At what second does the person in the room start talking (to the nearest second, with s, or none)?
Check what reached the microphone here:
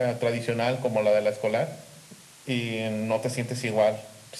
none